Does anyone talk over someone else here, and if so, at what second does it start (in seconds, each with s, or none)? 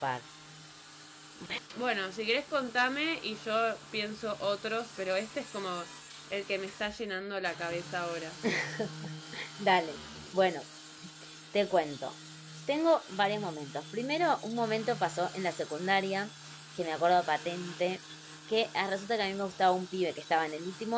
none